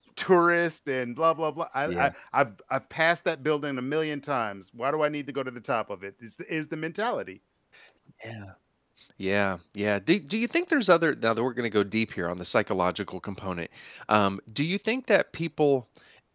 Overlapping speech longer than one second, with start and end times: none

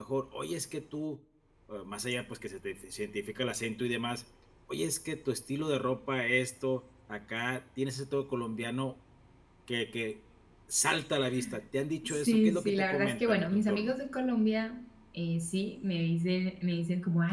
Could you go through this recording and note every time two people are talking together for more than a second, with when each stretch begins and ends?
12.0-13.9

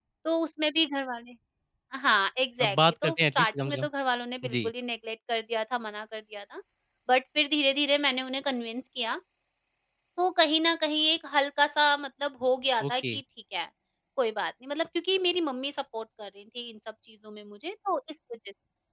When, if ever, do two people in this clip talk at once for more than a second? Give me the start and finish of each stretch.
2.6-3.9

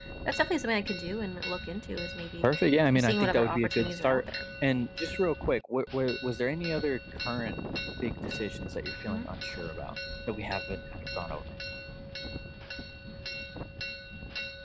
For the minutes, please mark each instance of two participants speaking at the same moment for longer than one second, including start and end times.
2.9-4.3

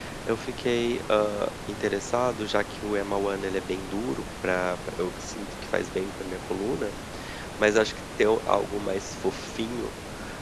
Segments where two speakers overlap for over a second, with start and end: none

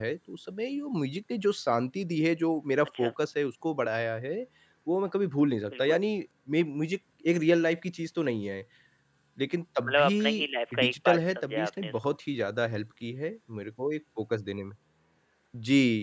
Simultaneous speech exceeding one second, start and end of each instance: 9.8-12.1

